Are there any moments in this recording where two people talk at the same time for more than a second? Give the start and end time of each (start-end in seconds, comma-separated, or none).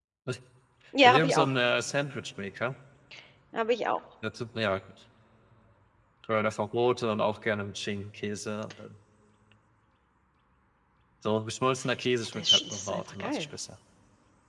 12.2-13.4